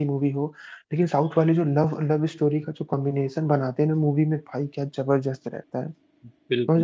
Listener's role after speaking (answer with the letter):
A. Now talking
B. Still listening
A